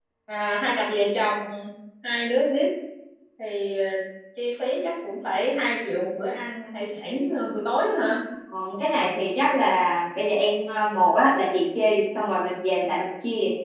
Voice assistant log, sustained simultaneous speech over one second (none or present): none